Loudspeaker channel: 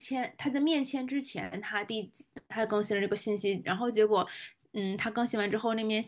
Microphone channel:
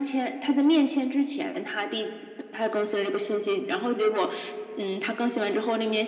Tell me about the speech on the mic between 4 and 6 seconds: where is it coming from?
echo only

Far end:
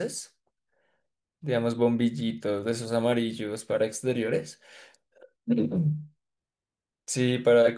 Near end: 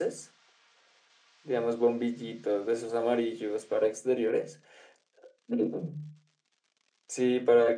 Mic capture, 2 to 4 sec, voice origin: echo only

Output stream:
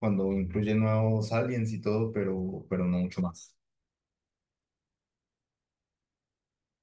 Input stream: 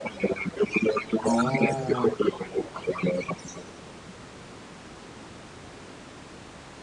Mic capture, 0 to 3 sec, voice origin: both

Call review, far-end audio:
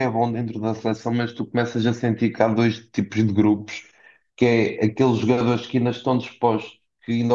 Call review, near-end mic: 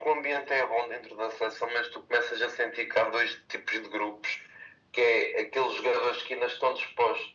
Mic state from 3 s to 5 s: echo only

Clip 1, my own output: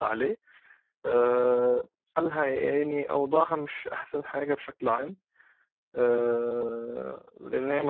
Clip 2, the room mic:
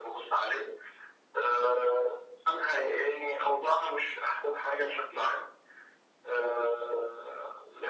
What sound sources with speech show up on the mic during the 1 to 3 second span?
echo only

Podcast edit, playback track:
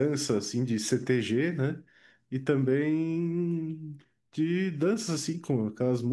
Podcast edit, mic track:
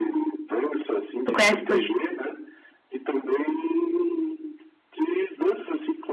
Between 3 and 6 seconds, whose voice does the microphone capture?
echo only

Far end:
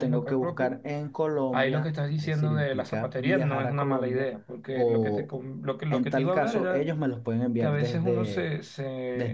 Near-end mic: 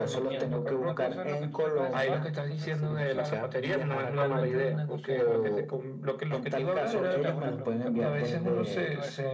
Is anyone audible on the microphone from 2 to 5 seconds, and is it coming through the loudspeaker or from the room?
both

